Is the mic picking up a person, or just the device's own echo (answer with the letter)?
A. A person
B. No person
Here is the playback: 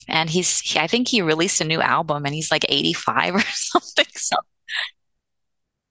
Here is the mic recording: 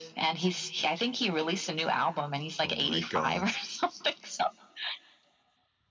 A